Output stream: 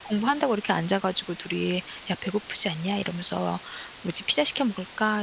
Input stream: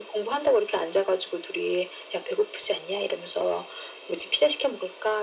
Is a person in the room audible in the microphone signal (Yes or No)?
No